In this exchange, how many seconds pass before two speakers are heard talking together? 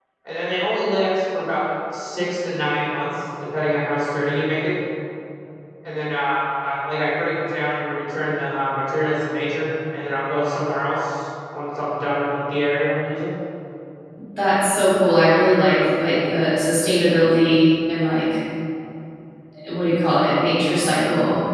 none

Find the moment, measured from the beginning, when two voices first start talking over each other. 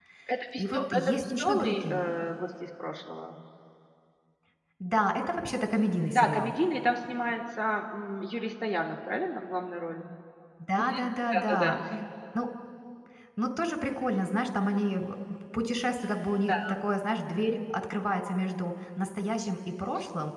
1 s

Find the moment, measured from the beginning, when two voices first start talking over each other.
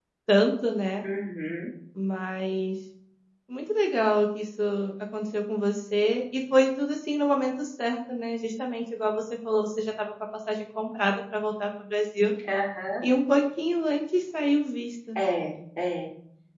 none

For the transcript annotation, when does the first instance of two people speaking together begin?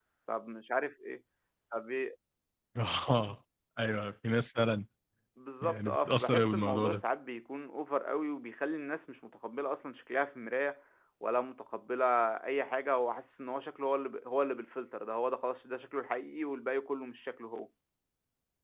6 s

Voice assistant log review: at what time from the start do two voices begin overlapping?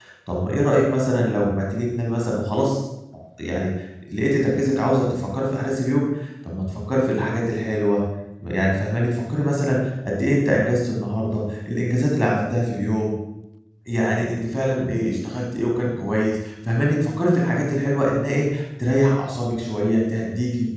none

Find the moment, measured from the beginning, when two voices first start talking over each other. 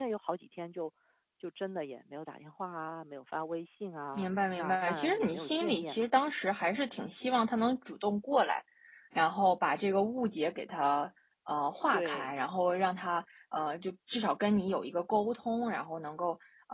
4 s

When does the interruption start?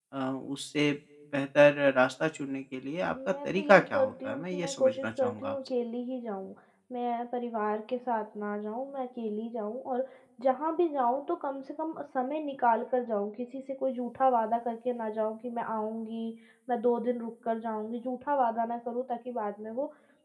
3 s

